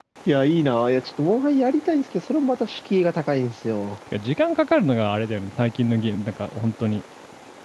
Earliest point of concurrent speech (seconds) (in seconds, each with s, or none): none